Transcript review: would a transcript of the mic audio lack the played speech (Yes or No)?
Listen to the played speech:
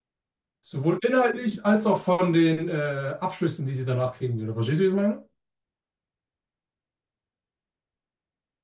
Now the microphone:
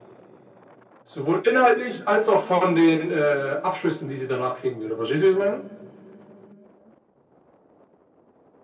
No